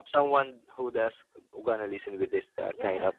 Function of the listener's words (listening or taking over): listening